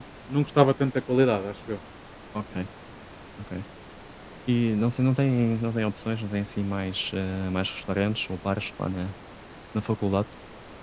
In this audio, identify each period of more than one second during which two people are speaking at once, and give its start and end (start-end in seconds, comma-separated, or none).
none